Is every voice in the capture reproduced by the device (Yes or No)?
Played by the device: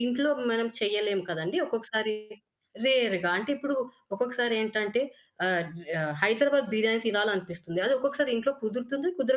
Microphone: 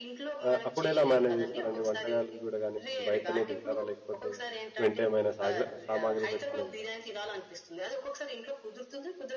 No